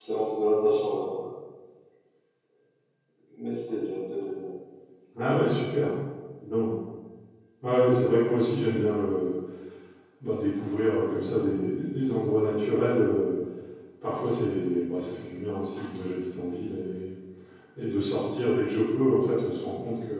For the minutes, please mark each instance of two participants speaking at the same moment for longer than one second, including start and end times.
none

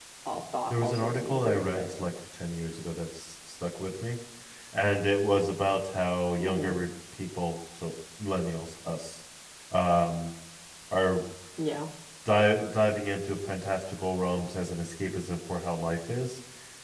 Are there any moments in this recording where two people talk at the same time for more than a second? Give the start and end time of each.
0.7-2.1

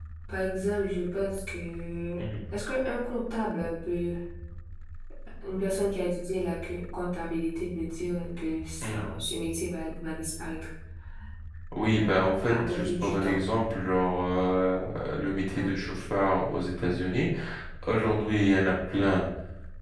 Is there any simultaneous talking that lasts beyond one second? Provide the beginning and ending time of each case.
11.9-13.4

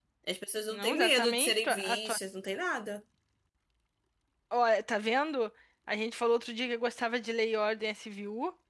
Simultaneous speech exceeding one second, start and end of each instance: 0.7-2.2

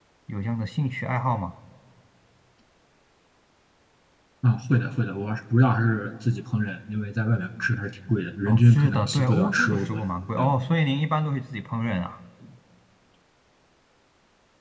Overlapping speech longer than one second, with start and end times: 8.4-10.0

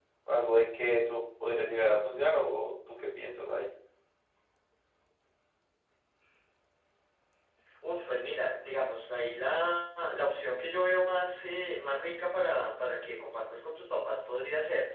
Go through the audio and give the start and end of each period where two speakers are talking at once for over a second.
none

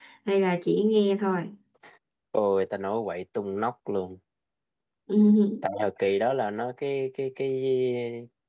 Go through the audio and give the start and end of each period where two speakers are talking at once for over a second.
none

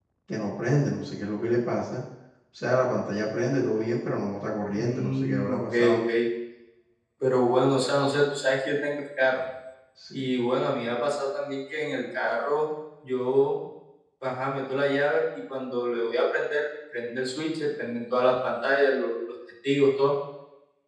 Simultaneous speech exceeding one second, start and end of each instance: 4.8-6.0

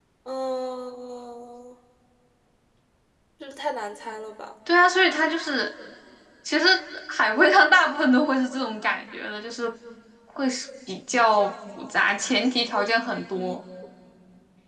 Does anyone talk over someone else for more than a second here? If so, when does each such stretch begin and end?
none

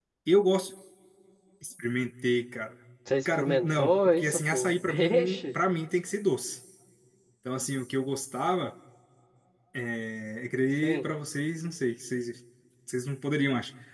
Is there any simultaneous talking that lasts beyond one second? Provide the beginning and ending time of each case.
3.2-5.6

